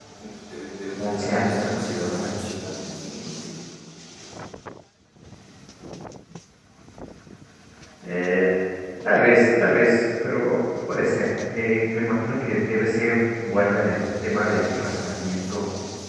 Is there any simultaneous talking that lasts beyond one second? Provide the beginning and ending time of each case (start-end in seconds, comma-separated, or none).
1.0-2.4